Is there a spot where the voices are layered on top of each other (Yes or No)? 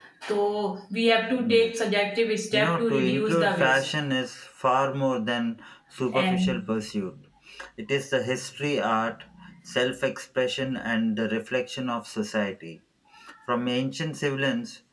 Yes